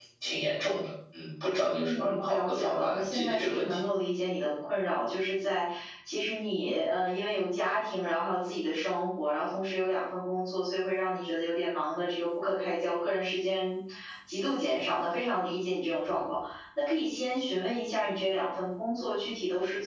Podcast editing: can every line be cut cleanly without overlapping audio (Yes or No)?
No